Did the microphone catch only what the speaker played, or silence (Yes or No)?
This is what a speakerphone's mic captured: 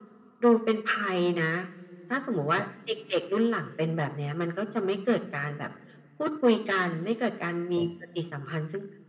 Yes